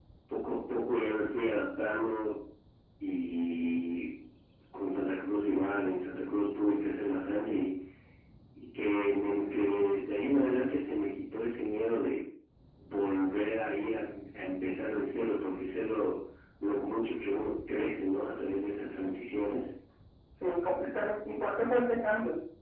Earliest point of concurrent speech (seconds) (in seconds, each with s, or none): none